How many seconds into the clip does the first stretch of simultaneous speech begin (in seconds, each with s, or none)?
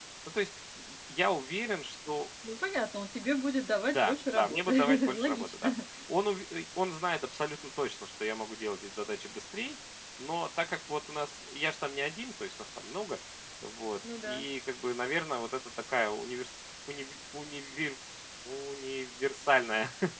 3.9 s